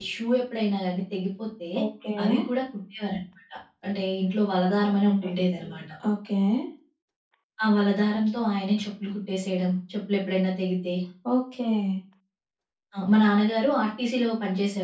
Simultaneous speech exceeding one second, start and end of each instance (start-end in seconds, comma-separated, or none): none